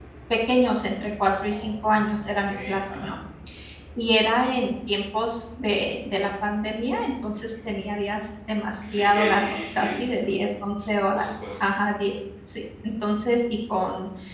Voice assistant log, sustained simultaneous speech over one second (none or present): present